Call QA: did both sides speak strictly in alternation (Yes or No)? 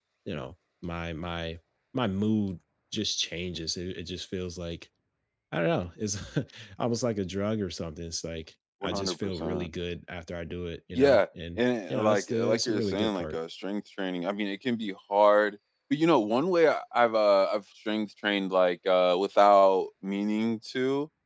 No